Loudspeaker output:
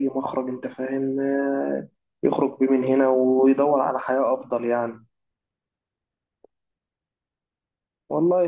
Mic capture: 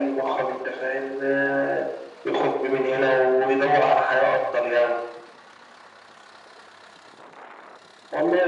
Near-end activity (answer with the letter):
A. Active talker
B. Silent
B